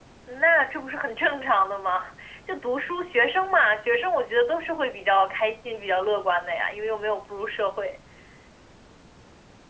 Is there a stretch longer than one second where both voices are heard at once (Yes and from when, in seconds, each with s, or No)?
No